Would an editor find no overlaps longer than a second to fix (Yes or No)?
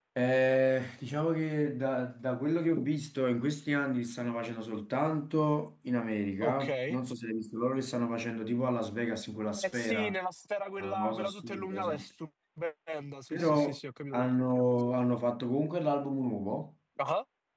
No